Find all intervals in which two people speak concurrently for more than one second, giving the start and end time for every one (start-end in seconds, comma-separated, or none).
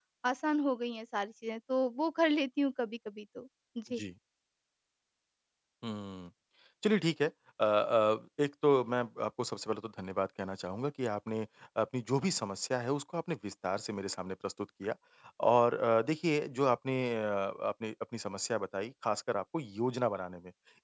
none